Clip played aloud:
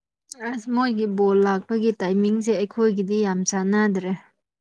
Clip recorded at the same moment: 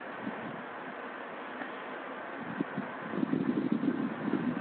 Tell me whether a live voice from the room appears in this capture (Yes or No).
No